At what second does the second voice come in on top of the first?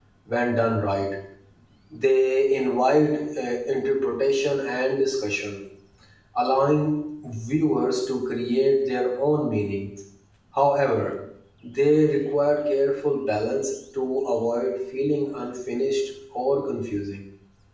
none

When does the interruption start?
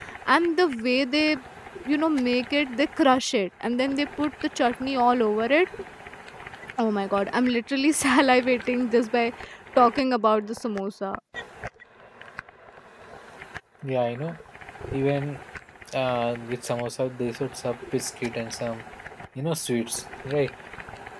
none

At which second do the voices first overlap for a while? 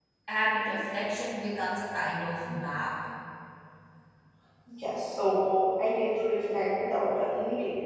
none

